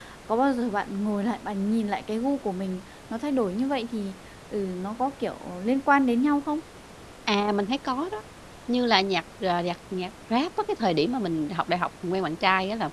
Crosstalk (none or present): none